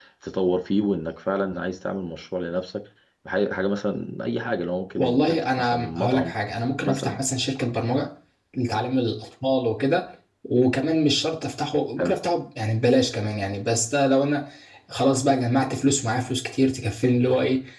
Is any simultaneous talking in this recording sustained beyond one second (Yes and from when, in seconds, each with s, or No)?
Yes, from 5.0 s